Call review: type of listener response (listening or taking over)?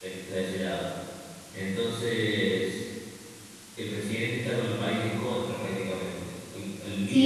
taking over